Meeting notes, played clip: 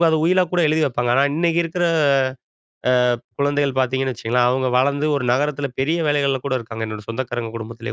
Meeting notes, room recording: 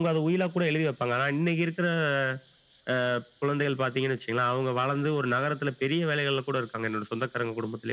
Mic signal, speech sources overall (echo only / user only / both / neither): echo only